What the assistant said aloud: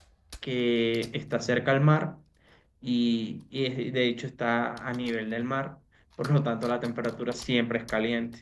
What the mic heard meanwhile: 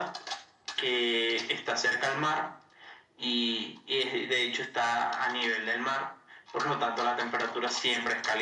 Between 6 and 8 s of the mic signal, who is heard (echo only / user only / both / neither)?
echo only